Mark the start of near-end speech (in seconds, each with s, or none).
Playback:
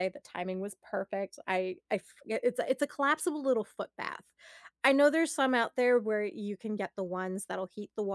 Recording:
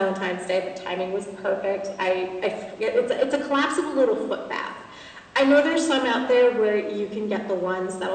none